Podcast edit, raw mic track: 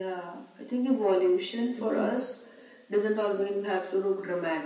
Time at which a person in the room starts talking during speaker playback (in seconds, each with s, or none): 1.7 s